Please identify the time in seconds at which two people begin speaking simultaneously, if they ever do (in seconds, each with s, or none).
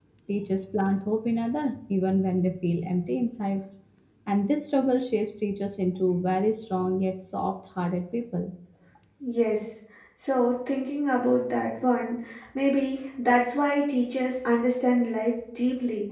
none